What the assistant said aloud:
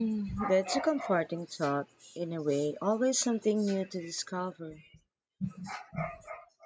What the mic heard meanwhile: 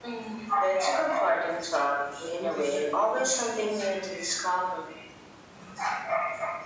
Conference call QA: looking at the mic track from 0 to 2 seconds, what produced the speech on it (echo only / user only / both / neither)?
echo only